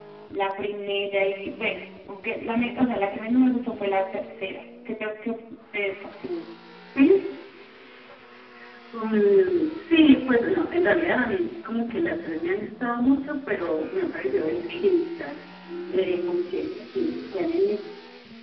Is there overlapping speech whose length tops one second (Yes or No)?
No